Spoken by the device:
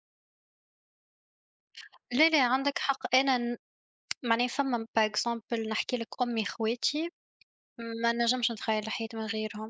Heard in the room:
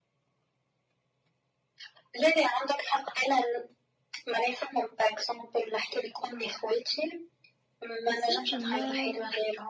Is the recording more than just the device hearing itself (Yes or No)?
Yes